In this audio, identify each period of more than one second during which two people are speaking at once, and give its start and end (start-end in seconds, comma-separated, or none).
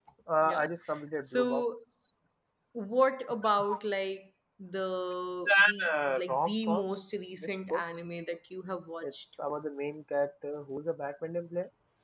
5.6-6.8